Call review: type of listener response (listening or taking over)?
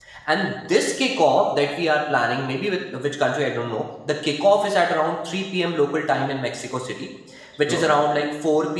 listening